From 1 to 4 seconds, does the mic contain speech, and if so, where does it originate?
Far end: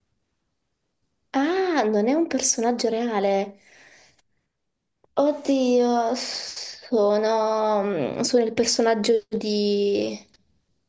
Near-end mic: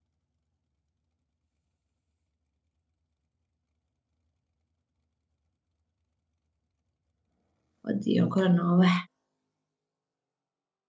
neither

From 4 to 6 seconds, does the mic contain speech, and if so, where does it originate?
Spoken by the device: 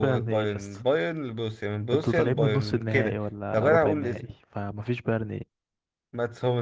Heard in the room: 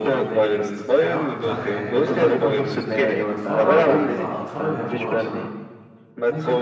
both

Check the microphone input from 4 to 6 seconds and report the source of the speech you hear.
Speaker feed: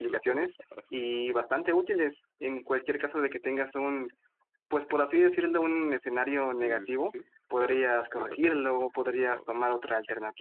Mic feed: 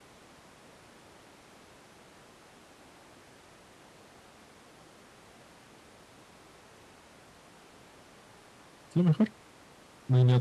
neither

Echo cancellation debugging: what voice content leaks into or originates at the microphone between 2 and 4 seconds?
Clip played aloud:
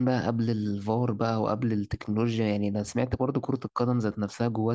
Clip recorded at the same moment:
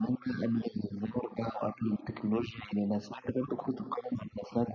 echo only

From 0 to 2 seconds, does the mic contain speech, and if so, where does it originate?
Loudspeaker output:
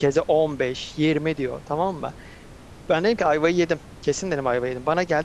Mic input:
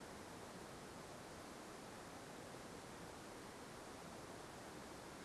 neither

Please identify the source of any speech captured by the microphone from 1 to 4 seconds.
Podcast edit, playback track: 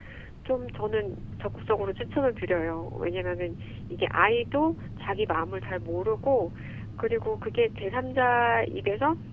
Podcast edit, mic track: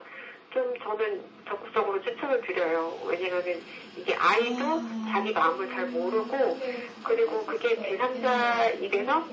echo only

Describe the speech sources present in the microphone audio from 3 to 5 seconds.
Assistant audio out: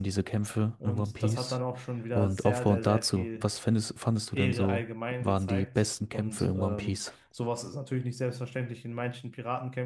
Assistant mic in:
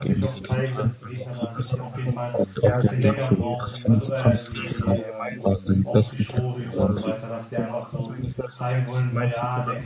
both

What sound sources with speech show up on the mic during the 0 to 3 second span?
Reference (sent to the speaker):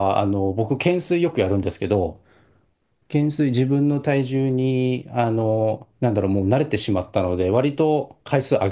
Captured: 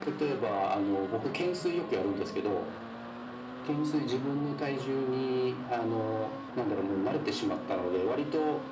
echo only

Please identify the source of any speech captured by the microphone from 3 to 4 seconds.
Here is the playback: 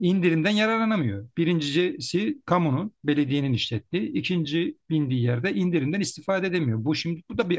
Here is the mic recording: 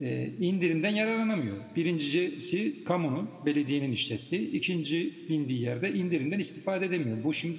echo only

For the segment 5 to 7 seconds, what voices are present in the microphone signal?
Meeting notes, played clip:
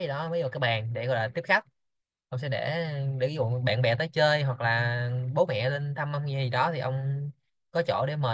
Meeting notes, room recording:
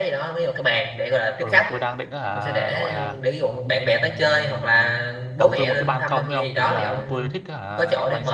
both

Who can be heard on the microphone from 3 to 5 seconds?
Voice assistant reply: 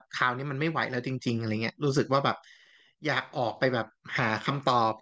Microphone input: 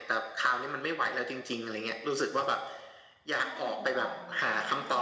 both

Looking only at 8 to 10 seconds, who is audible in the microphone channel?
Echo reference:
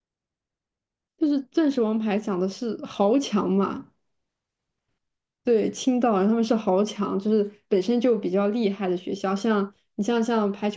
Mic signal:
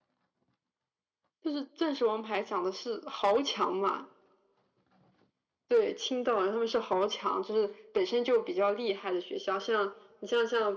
echo only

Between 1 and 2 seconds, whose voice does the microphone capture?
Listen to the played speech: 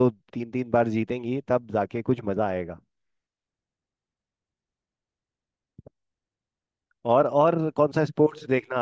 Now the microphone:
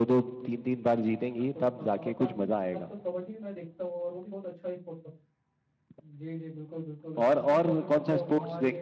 both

